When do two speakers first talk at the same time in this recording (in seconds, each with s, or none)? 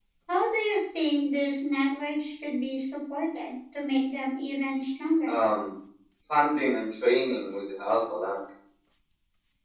none